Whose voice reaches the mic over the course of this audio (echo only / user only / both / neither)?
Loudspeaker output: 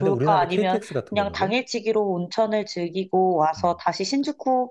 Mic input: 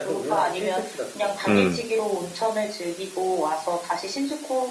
both